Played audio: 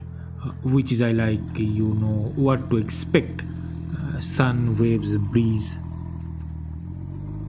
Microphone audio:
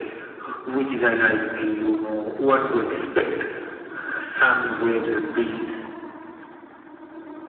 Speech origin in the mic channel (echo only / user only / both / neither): echo only